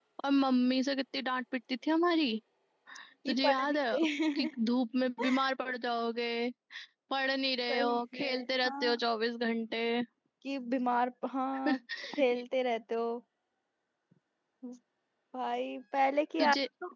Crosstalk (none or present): present